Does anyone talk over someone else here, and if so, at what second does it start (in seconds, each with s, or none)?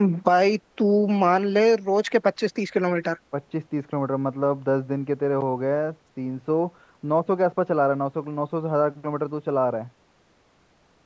none